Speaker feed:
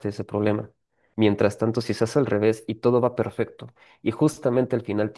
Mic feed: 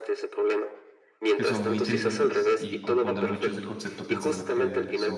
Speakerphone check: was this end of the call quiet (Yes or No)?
No